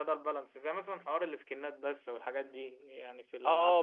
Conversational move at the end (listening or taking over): taking over